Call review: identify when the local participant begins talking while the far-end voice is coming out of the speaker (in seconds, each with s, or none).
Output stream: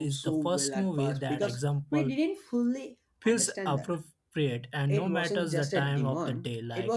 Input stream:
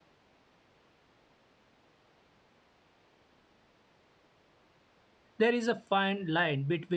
5.4 s